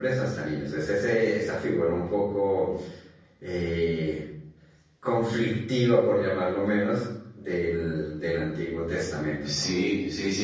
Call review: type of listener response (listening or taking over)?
taking over